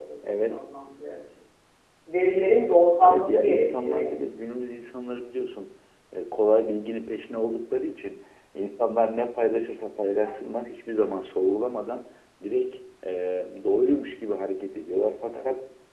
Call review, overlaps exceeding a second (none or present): present